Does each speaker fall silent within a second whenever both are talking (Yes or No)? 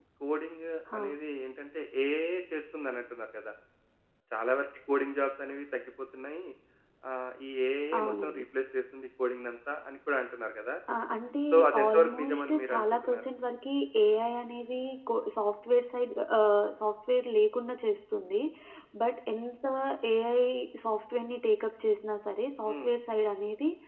No